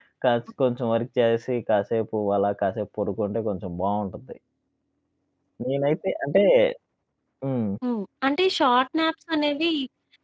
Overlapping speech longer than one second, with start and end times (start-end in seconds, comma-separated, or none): none